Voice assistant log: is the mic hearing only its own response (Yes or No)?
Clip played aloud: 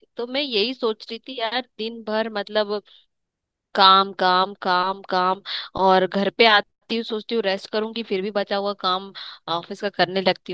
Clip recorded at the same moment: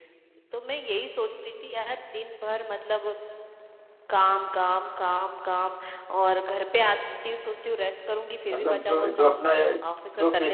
No